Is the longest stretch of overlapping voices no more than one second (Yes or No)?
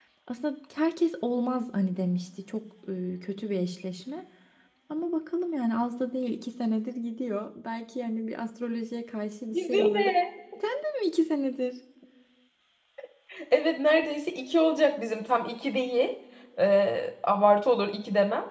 Yes